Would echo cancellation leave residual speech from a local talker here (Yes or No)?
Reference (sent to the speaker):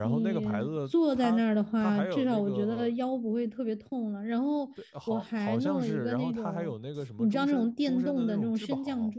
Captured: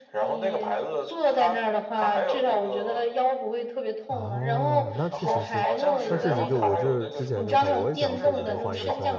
Yes